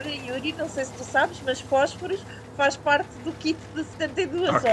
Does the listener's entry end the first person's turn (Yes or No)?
Yes